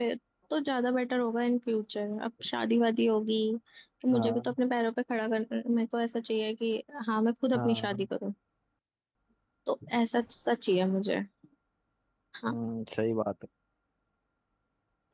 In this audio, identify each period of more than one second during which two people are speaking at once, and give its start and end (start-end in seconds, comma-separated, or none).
none